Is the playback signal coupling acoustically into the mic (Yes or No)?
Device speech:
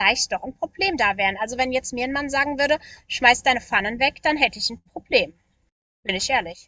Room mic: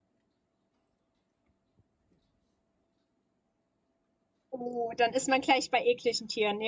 No